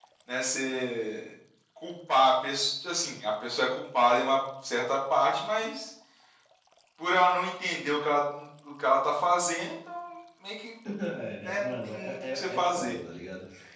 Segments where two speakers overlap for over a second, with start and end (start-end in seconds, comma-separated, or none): 11.4-12.9